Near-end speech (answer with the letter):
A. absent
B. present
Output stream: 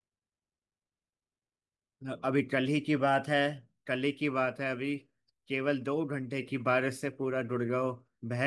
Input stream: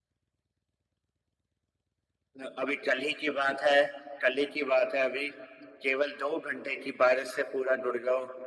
A